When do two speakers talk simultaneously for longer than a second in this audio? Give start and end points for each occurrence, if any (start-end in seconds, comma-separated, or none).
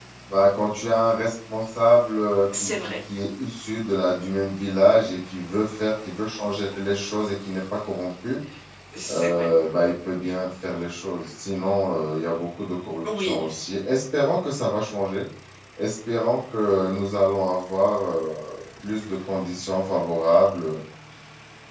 none